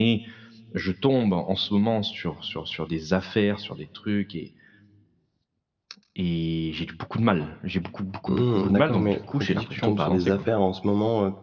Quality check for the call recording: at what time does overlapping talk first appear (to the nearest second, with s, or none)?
8 s